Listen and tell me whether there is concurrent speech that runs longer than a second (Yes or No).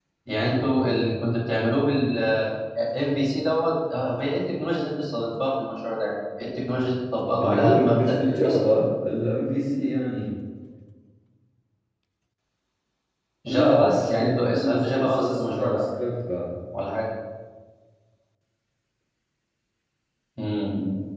Yes